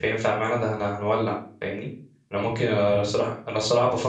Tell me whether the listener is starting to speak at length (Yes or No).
No